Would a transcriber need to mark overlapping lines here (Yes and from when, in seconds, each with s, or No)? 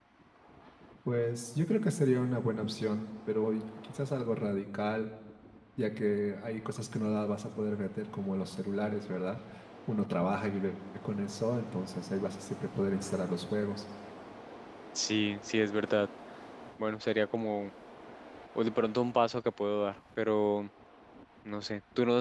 No